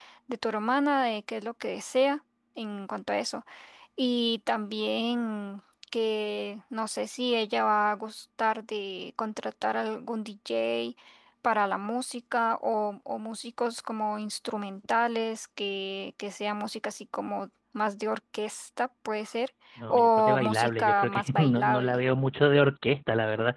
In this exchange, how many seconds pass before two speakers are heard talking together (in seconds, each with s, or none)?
19.8 s